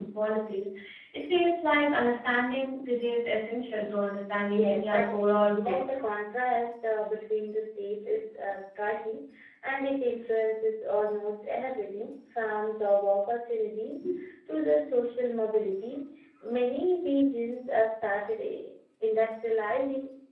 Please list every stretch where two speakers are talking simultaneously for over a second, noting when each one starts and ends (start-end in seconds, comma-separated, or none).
4.5-5.8